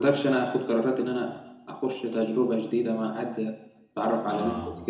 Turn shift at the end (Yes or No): No